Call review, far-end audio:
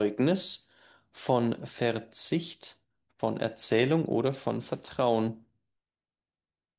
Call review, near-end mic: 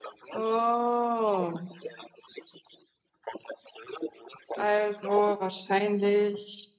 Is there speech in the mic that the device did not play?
Yes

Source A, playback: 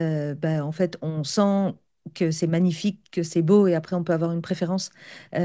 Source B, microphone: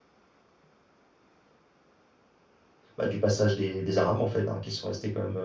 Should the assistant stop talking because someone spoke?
Yes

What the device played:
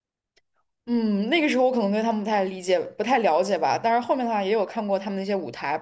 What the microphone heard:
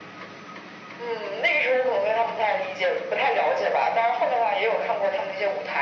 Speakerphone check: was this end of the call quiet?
Yes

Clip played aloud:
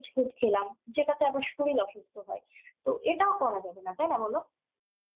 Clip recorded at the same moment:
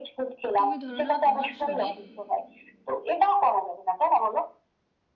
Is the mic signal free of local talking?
No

